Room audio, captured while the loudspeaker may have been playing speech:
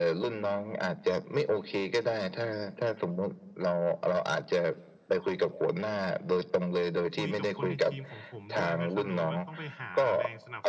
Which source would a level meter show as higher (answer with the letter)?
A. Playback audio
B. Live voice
A